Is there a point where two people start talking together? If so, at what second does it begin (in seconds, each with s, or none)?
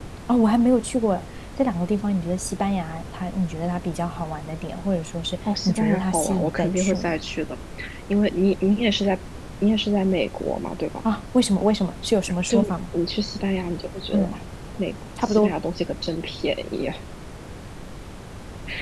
5.6 s